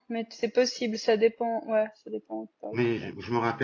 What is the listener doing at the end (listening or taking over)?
taking over